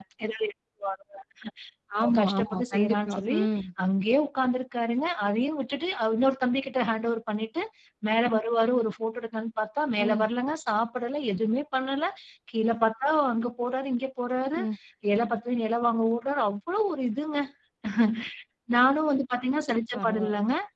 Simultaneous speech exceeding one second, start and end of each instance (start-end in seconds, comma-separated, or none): 2.0-3.4